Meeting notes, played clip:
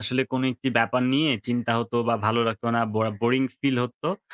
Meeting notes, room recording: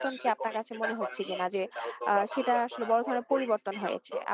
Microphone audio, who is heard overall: both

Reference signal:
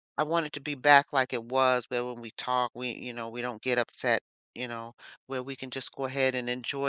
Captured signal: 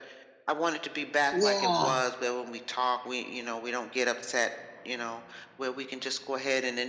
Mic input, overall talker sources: both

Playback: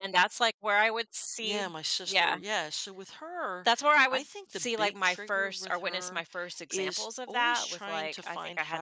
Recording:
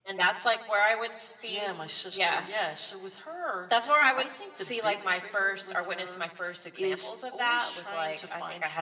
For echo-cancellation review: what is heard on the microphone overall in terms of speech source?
echo only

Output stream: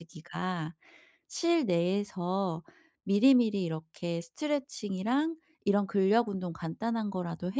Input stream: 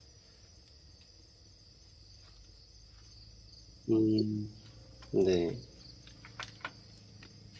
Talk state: user only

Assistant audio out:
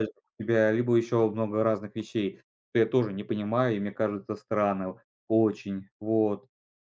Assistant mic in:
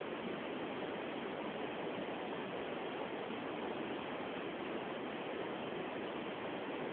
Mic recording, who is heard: neither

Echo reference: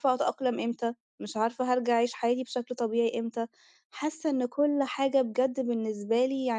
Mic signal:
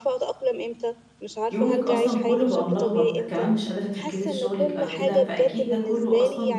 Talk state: both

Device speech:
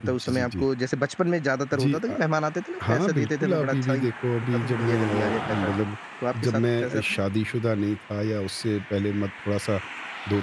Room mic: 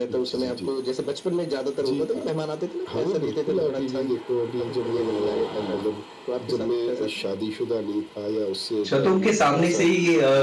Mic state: both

